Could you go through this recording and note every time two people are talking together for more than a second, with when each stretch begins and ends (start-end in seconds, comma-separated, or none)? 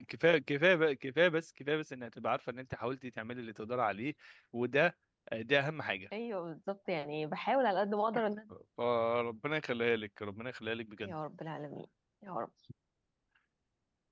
none